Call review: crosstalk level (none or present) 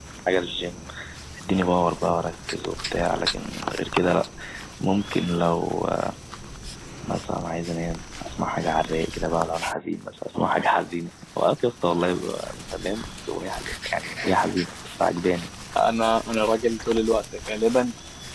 none